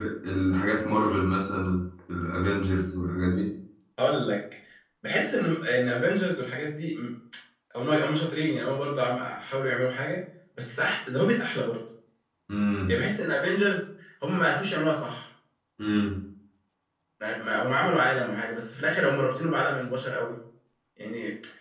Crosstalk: none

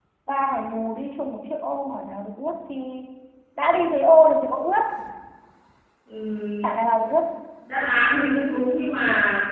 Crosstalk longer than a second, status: none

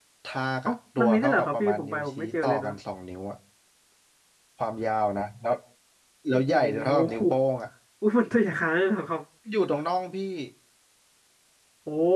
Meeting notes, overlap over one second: present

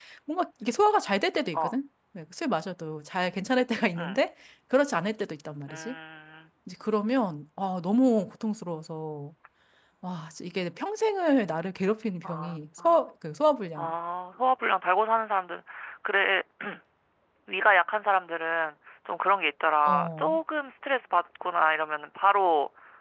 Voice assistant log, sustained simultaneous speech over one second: none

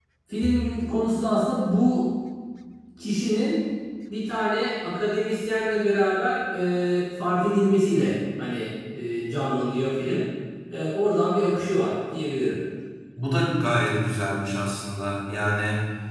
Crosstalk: none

